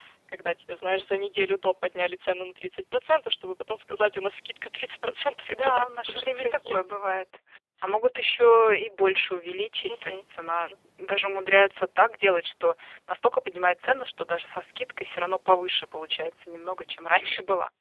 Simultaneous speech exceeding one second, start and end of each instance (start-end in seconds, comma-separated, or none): 5.5-6.8